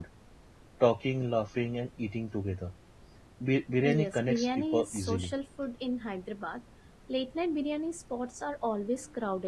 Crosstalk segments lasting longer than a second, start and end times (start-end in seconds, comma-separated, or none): 3.8-5.4